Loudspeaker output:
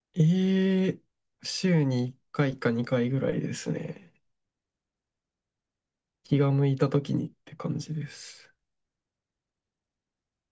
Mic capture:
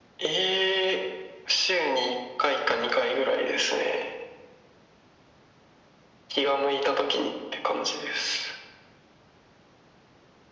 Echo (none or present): present